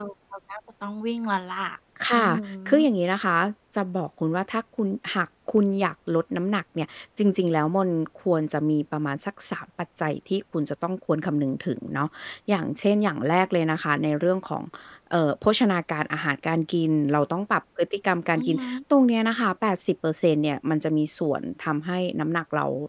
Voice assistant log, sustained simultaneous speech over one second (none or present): none